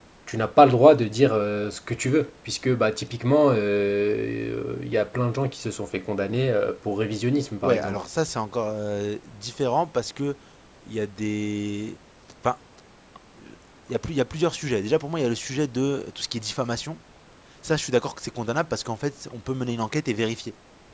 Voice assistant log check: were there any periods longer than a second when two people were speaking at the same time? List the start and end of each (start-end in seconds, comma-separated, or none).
none